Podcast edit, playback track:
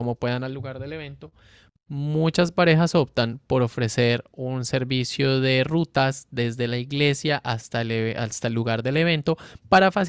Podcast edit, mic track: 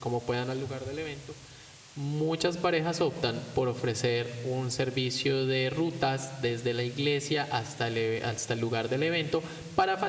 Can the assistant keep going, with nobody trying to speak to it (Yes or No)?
Yes